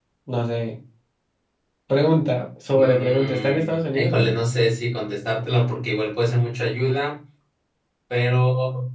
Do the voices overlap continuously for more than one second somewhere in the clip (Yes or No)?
Yes